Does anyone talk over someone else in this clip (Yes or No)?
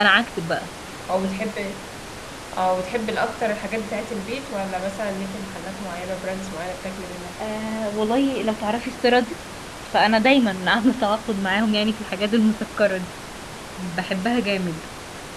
No